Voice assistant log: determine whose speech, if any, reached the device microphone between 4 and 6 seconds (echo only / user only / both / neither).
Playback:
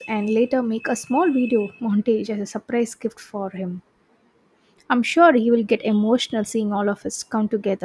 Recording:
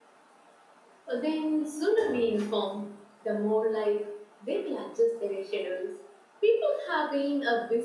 user only